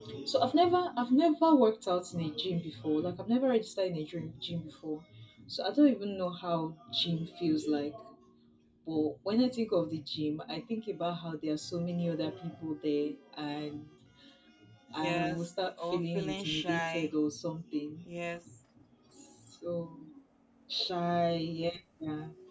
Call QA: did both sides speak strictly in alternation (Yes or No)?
No